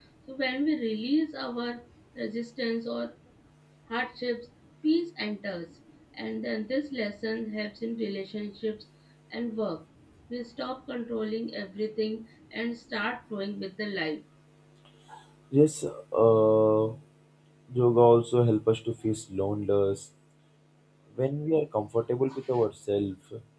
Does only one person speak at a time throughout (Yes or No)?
Yes